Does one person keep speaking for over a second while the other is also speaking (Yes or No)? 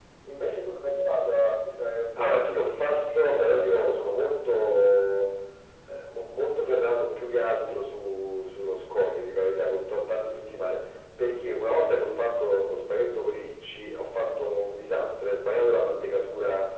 Yes